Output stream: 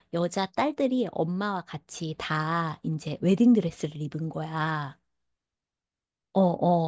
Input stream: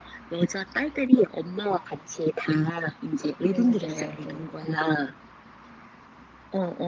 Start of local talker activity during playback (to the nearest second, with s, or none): 3 s